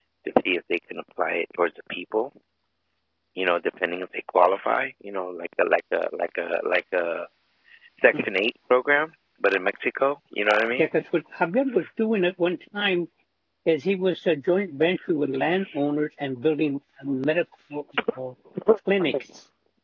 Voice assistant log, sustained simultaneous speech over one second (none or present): none